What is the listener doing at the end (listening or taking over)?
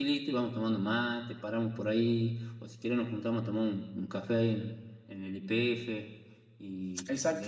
taking over